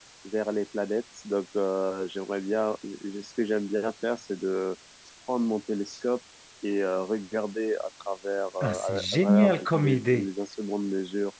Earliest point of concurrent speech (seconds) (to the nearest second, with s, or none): 9 s